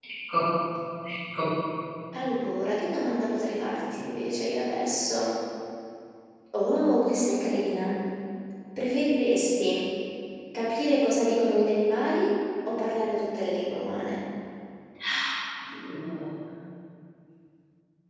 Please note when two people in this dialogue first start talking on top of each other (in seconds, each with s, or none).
none